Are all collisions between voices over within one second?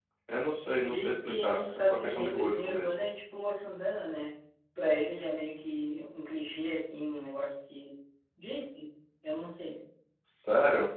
No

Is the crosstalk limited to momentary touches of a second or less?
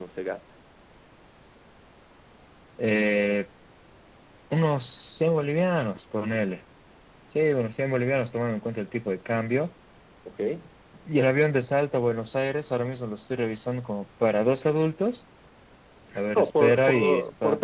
No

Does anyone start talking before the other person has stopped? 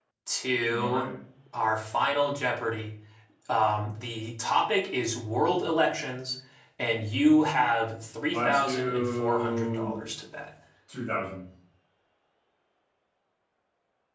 Yes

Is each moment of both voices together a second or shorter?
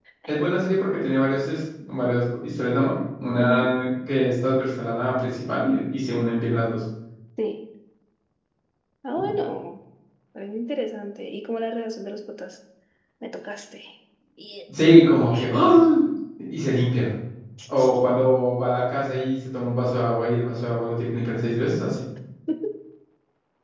Yes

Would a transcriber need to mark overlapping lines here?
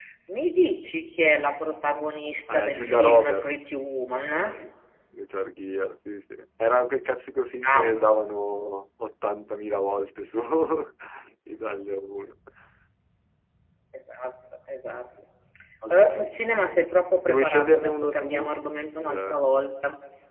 Yes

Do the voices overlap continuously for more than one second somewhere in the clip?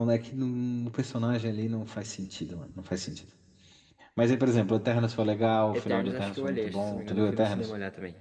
Yes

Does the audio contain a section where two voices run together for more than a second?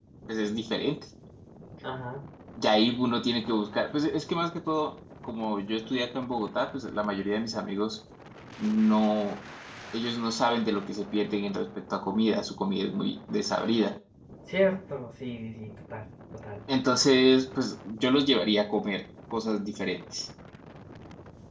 No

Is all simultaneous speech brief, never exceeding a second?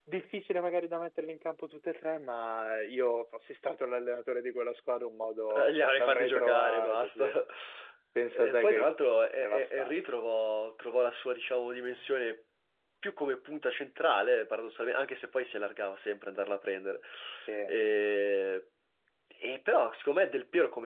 No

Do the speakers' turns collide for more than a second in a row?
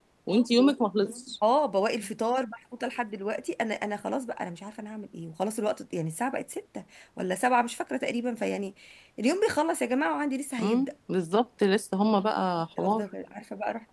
No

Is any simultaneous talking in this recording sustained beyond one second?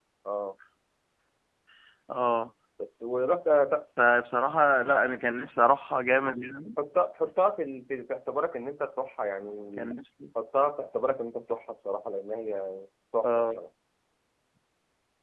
No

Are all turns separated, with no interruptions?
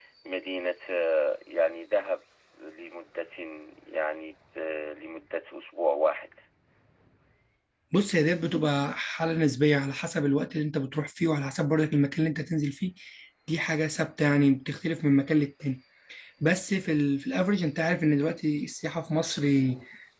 Yes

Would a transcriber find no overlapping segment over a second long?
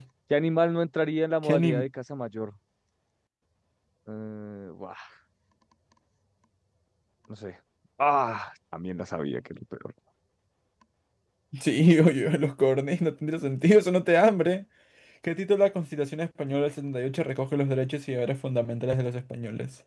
Yes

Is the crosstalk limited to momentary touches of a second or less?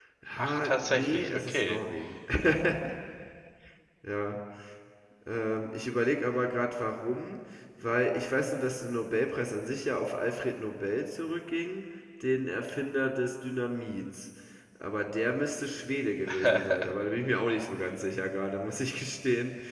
No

